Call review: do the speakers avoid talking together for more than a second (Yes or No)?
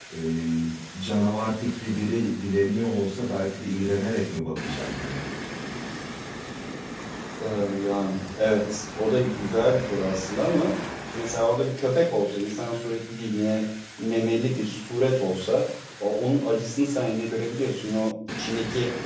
Yes